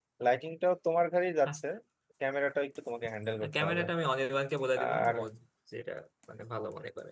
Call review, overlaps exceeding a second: none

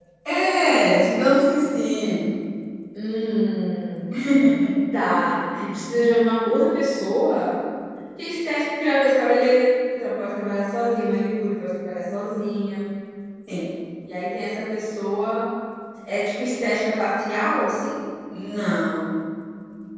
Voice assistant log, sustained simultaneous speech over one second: none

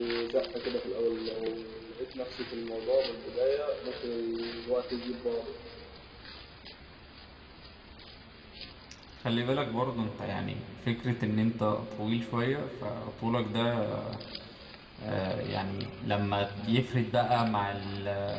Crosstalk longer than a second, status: none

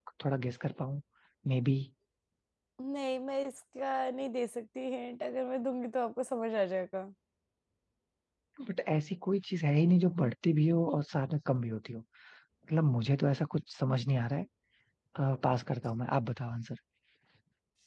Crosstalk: none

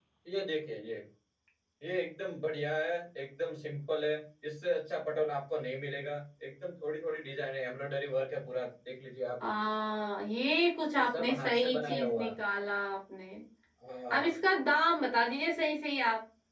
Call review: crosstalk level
present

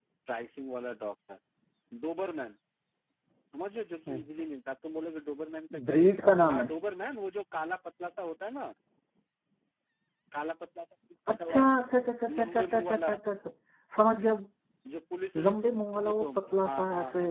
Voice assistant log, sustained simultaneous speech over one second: present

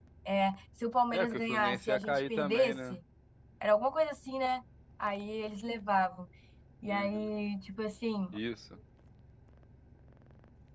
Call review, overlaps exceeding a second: present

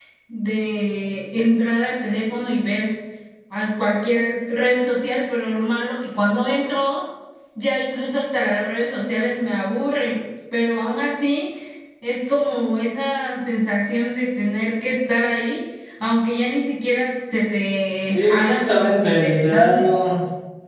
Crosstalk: present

